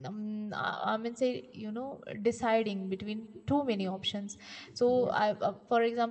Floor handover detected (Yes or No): No